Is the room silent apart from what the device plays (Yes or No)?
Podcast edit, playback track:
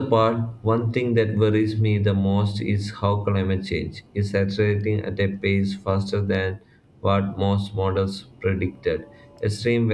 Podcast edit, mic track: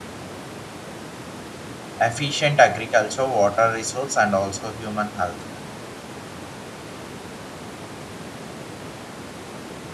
No